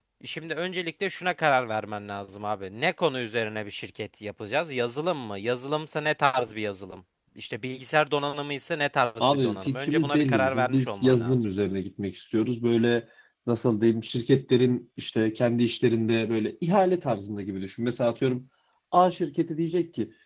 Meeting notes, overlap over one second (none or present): present